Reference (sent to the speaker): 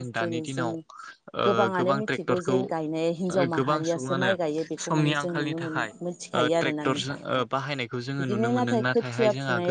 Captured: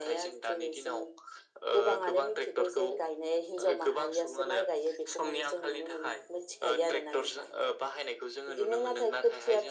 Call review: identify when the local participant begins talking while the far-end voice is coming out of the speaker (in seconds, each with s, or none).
none